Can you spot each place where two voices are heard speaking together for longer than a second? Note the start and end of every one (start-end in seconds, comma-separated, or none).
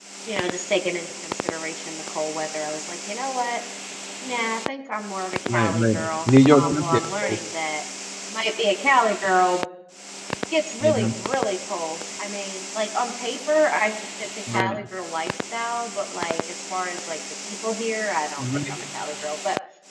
5.5-7.4